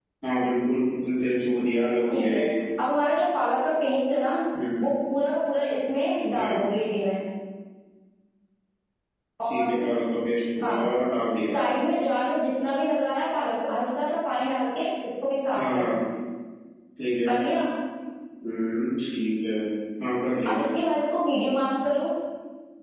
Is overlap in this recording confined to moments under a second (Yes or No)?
Yes